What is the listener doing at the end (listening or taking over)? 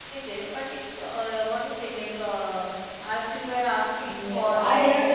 taking over